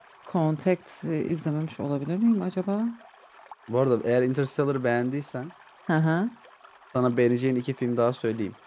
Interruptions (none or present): none